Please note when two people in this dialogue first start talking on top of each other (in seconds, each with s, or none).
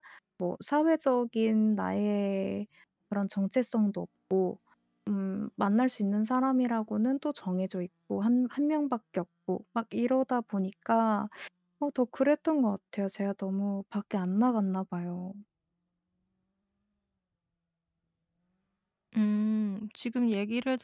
none